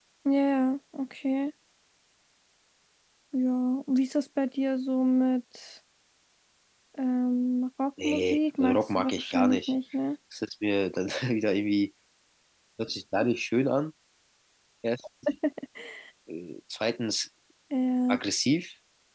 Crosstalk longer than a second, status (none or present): present